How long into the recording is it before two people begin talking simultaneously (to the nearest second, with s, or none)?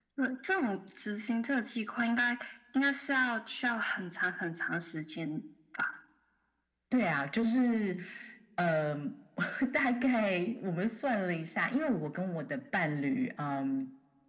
none